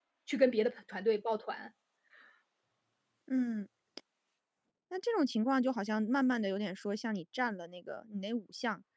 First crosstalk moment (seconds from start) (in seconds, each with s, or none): none